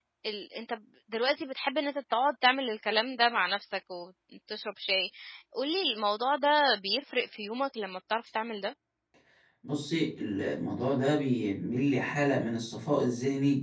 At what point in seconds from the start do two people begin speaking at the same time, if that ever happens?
none

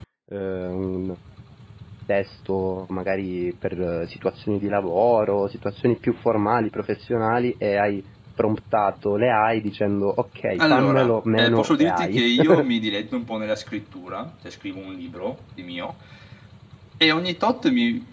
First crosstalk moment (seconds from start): 11 s

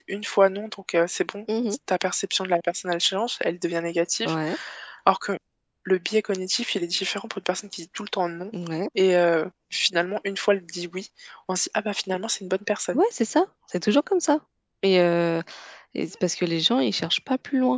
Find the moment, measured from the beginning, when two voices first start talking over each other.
none

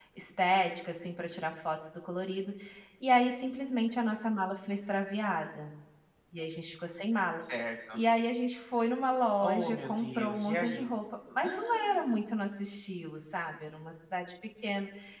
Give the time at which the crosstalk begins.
9 s

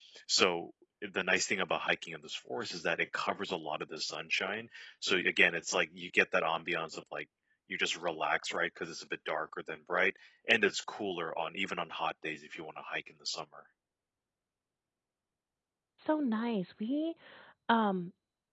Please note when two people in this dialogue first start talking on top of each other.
none

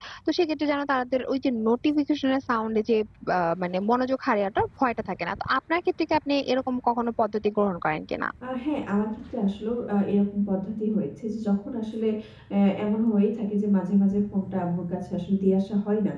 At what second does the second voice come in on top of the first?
none

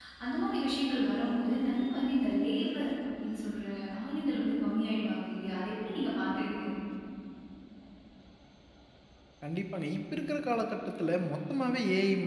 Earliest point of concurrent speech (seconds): none

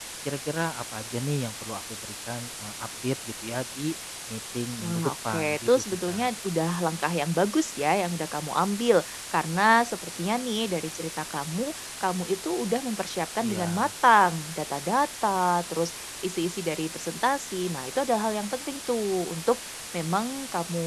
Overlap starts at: 5 s

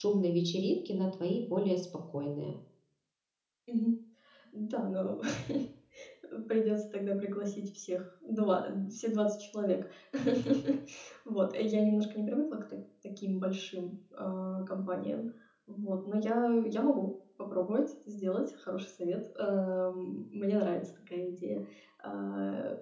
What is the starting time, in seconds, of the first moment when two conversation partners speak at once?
none

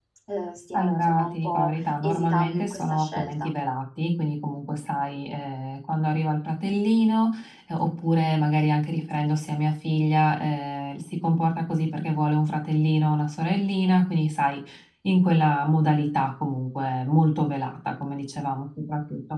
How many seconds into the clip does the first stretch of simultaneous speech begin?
1 s

